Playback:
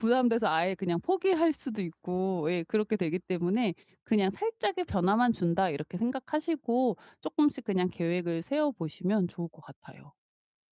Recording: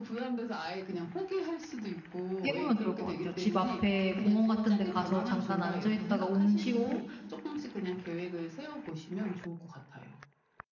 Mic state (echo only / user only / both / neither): both